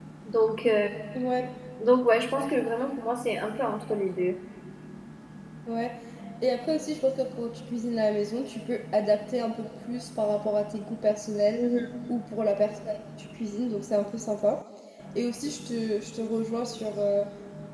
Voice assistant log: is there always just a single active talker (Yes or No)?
Yes